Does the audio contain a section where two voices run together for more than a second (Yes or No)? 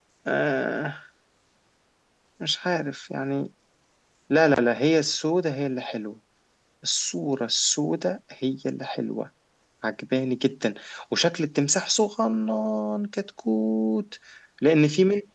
No